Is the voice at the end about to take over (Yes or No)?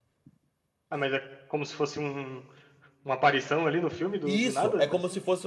Yes